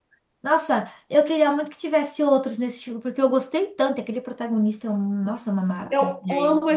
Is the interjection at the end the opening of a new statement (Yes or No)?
Yes